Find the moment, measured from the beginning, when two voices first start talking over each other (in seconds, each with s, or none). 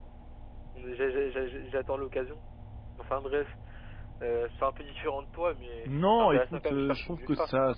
5.8 s